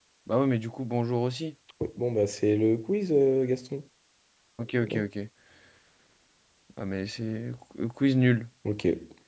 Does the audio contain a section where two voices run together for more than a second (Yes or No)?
No